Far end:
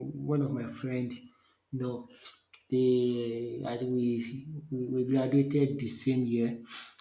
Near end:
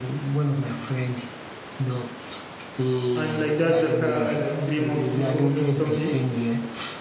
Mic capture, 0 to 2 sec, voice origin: echo only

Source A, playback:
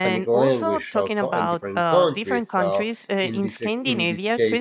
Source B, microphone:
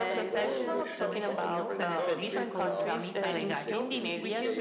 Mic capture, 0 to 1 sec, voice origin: both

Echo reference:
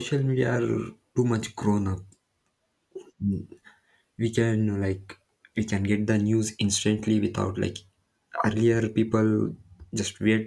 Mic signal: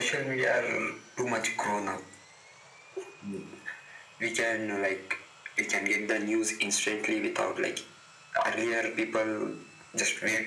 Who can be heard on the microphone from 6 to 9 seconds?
echo only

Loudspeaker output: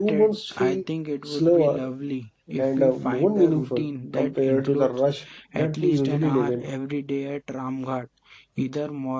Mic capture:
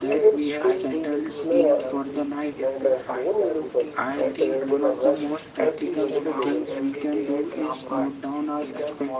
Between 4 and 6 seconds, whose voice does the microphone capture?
both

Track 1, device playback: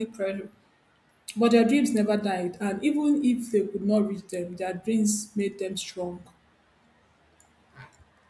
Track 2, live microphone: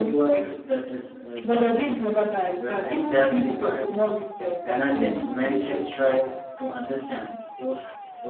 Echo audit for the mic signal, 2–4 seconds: both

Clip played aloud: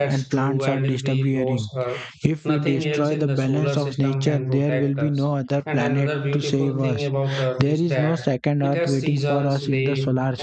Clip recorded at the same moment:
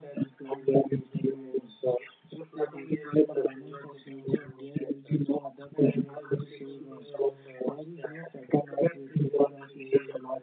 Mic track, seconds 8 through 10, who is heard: echo only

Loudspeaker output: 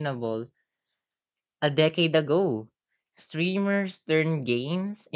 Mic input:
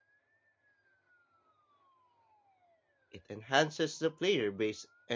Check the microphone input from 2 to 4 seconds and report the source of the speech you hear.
user only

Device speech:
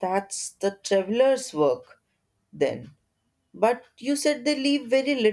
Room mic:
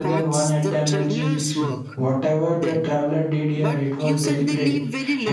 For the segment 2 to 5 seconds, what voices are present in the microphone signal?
both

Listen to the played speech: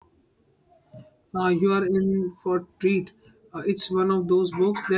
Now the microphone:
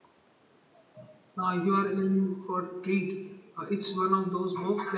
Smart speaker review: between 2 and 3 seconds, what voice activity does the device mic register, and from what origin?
echo only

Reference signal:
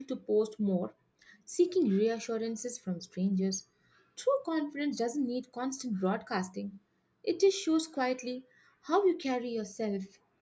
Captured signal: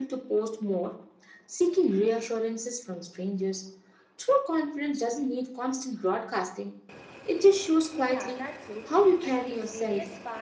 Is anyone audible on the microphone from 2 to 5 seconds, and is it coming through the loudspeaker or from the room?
echo only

